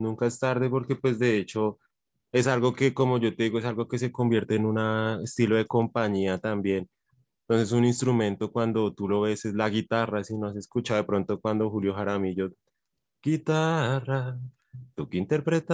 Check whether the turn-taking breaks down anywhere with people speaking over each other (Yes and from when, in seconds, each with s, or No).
No